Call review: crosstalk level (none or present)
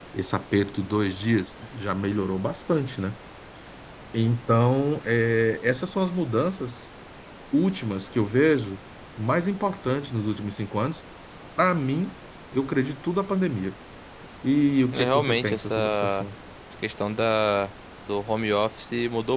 present